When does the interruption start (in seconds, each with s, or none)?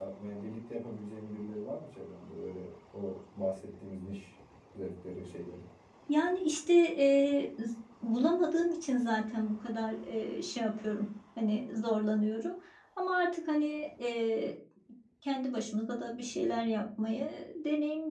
none